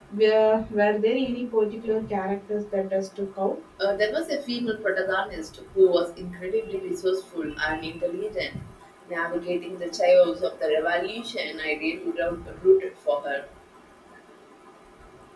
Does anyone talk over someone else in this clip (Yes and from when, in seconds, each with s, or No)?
No